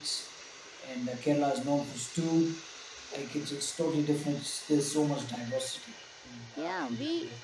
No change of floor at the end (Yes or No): No